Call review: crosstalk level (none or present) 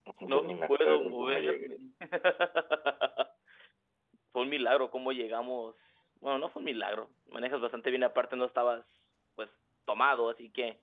present